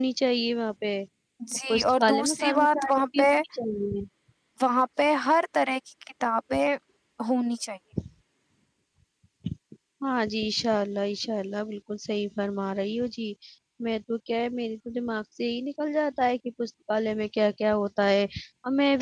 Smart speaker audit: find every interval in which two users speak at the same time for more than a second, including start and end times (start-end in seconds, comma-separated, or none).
1.7-3.3